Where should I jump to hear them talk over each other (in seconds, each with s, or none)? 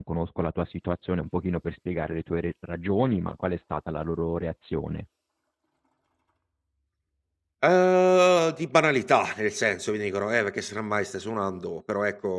none